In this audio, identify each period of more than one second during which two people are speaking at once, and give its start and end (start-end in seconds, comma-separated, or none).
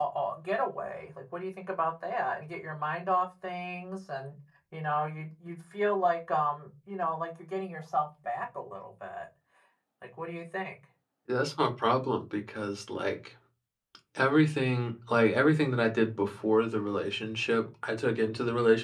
none